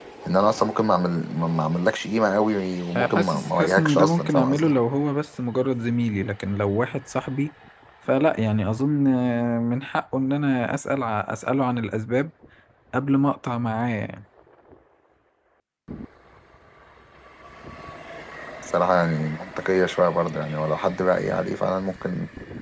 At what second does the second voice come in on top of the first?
3.0 s

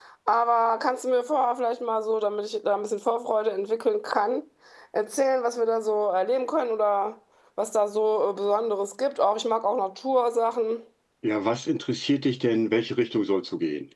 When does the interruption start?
none

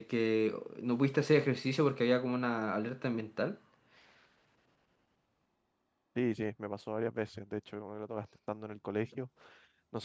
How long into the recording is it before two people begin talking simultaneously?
none

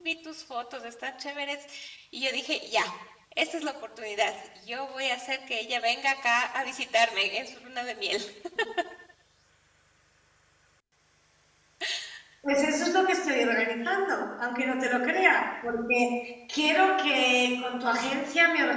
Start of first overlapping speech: none

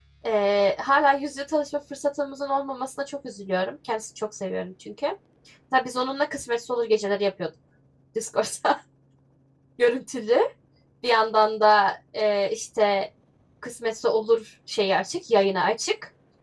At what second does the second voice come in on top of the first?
none

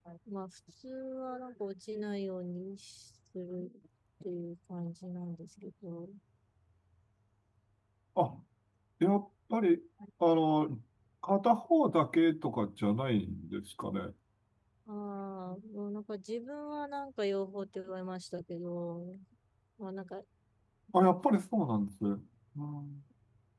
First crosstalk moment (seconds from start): none

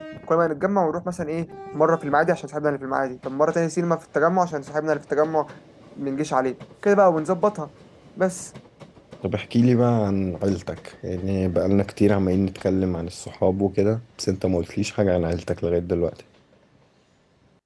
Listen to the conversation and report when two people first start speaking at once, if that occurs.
none

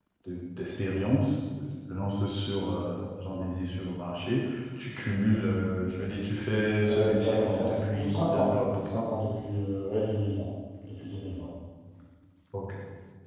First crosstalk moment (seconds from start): 6.8 s

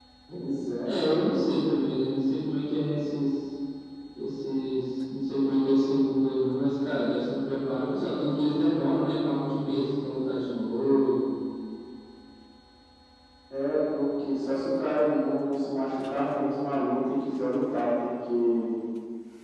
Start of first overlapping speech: none

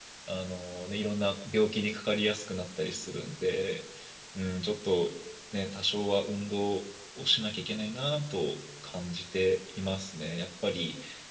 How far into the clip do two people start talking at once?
none

